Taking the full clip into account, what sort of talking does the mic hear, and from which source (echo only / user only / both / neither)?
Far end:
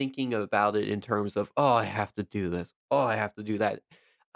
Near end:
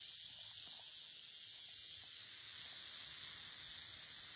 neither